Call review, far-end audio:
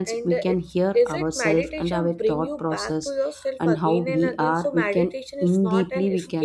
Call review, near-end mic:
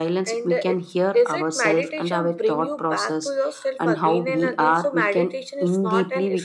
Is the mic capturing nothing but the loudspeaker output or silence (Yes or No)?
Yes